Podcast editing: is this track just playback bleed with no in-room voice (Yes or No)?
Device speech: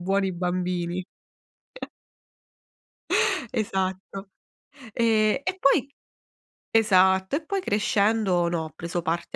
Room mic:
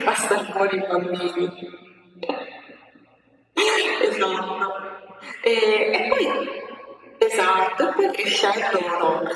Yes